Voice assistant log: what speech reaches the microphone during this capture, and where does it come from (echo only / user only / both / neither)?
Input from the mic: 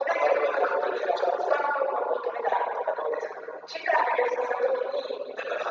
echo only